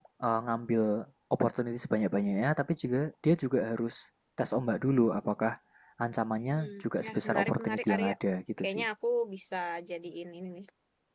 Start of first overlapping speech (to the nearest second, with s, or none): 7 s